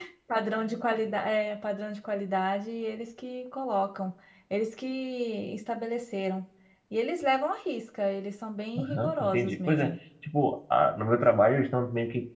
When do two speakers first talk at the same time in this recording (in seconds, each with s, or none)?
8.8 s